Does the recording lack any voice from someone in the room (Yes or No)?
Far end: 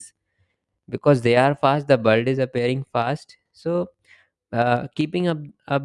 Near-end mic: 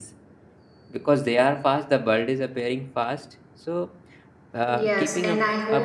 No